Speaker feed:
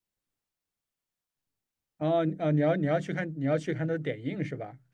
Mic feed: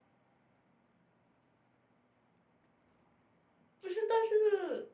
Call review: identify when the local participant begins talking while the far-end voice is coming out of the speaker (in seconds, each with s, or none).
3.8 s